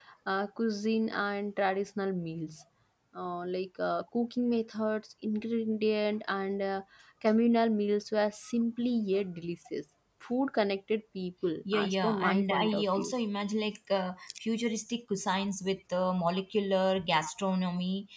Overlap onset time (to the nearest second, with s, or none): 12 s